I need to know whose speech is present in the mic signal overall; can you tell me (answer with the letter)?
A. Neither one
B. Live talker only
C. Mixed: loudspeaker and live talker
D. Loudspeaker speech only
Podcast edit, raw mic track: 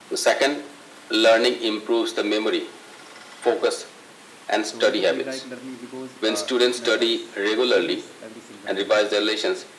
C